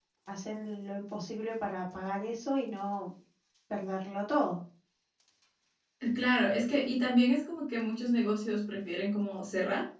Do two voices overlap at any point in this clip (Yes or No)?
No